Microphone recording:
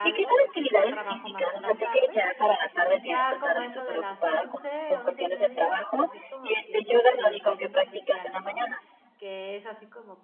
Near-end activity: present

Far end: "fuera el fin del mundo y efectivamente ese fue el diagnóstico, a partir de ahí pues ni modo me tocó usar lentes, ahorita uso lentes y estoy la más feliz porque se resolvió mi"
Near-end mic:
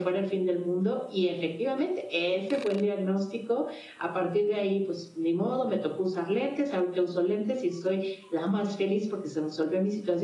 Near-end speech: none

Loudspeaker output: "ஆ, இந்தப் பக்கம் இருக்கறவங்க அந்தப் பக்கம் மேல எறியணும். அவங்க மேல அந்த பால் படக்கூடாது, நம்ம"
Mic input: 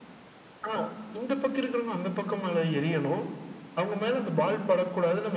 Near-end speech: none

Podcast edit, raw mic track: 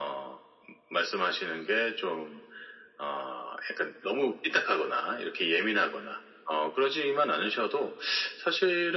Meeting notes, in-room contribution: none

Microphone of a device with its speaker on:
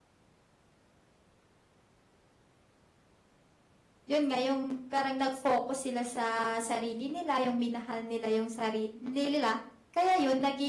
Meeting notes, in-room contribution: present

